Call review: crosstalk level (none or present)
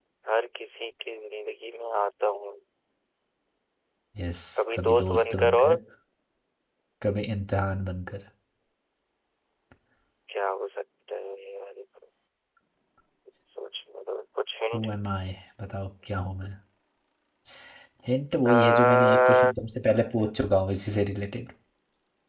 present